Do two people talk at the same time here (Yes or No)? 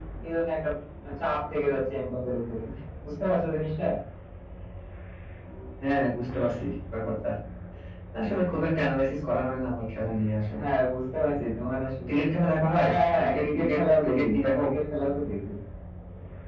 Yes